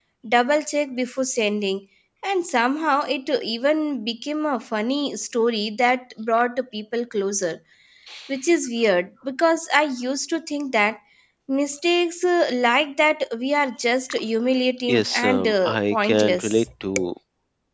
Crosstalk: present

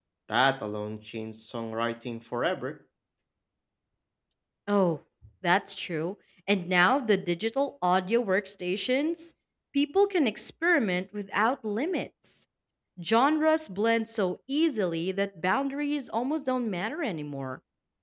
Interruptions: none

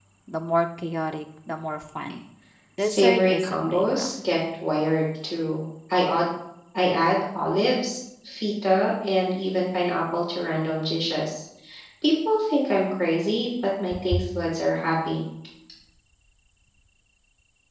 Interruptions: present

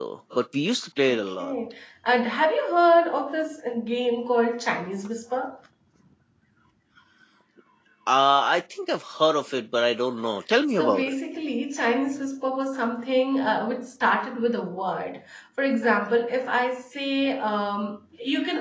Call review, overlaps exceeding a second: none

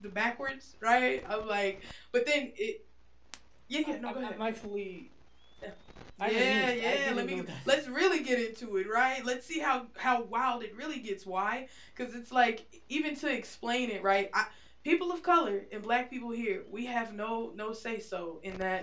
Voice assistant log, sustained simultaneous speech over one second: present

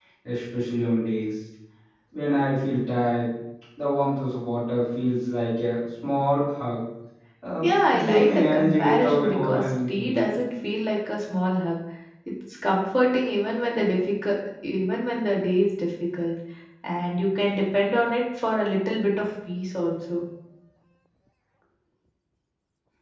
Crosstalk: present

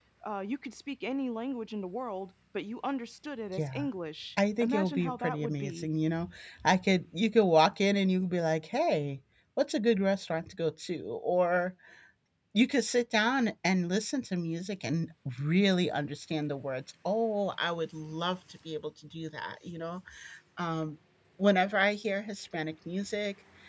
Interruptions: present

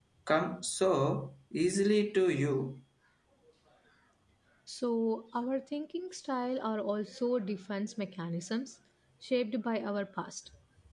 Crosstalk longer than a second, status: none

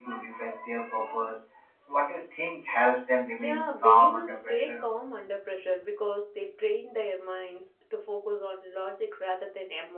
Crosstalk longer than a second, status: present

